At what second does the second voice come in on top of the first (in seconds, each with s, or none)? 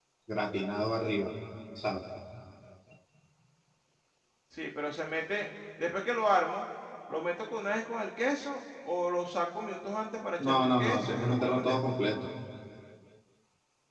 10.4 s